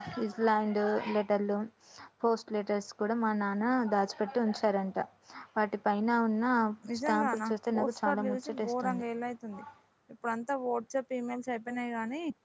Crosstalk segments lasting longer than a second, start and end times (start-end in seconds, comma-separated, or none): 7.1-9.0